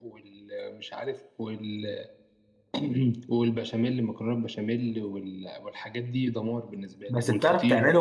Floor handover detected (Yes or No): Yes